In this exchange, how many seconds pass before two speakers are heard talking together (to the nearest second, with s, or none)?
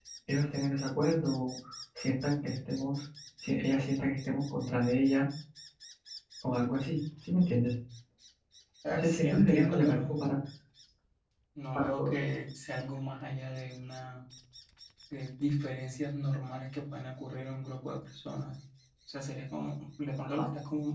9 s